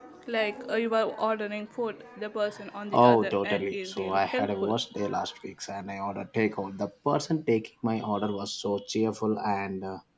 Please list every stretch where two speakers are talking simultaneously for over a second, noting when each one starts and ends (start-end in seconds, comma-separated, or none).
2.9-4.7